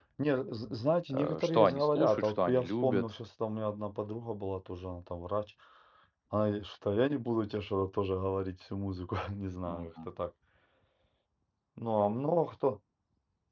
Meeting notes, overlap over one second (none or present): present